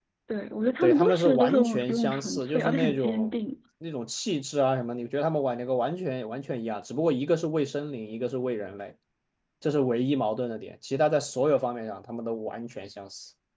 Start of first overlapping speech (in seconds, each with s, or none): 0.8 s